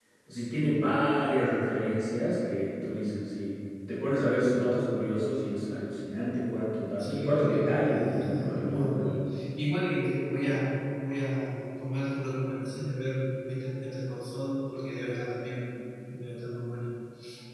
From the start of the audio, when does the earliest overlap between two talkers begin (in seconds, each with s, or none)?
7.0 s